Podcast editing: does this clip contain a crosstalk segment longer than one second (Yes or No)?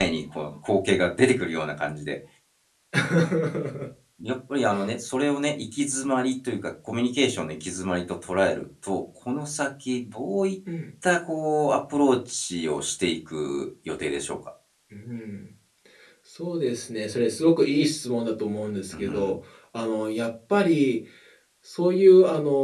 No